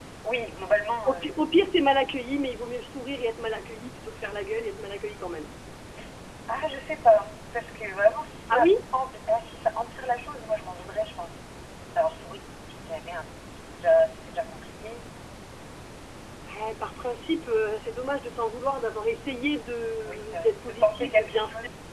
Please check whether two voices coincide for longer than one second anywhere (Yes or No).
Yes